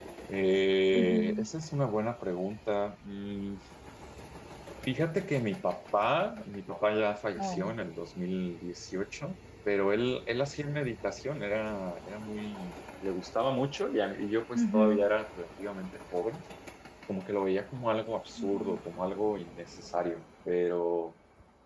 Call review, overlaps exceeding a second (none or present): none